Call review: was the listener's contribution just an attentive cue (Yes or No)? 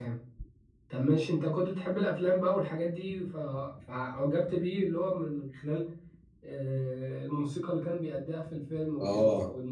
No